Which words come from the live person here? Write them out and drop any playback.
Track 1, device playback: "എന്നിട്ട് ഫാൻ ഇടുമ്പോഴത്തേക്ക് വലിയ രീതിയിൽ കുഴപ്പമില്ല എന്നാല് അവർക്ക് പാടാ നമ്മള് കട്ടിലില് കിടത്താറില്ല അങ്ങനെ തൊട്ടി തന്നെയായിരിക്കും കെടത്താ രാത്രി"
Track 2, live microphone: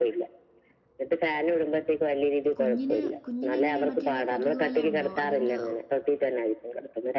കുഞ്ഞിന് കുഞ്ഞിന് എങ്ങനെ മറ്റേ എല്ലാ കൊതുക് വലയുണ്ടോ അതിന്റെറെ

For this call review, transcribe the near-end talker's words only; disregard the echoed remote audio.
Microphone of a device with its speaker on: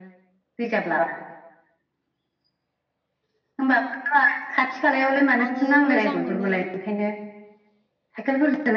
आङो मोजां मोनो।

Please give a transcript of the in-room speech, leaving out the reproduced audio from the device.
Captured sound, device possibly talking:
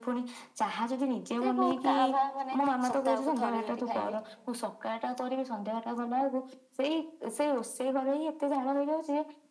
ସେ କଉ କାଭାଁ ମାନେ ସପ୍ତାହକୁ ଥରେ ଯଦି ଖାଇବି

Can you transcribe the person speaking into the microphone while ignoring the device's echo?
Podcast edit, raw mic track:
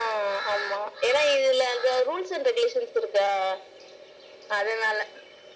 none

